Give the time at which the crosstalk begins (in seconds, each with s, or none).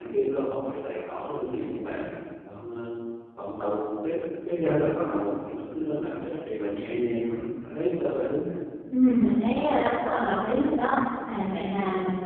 none